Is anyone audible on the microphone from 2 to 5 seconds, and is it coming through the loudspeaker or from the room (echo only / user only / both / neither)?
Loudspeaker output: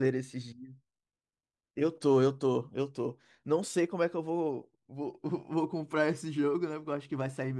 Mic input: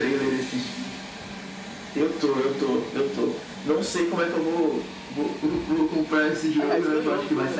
echo only